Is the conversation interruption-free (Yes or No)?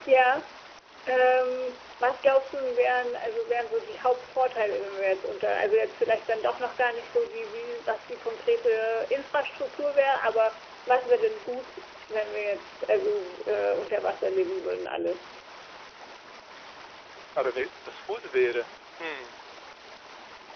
Yes